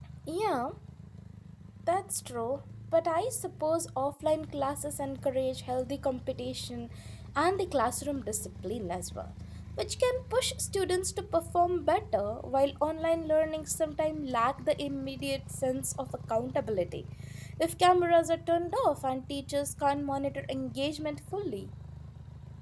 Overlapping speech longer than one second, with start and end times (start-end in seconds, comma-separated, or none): none